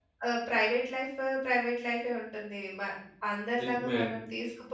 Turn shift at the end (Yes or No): No